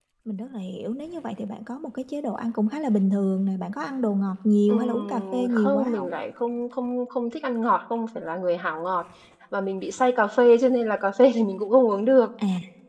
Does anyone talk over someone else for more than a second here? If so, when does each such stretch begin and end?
4.7-6.1

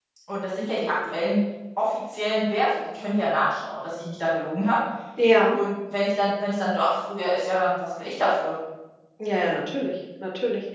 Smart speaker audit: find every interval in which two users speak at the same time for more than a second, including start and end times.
none

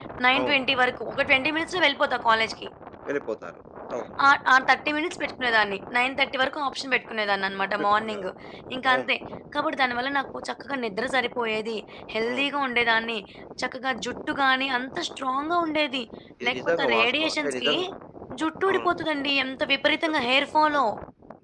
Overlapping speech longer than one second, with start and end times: 16.5-17.7

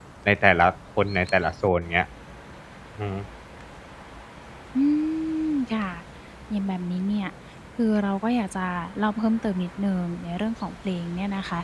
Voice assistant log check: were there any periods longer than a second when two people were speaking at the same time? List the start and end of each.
none

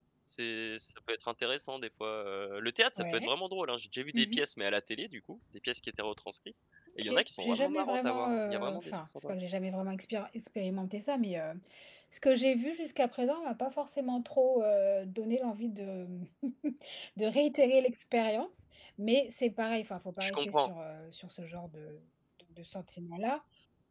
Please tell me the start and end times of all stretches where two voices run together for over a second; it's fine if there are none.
7.0-9.3

